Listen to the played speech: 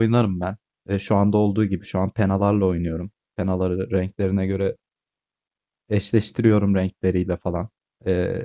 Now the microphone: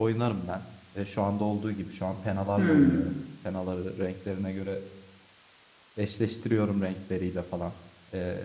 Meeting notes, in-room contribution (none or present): present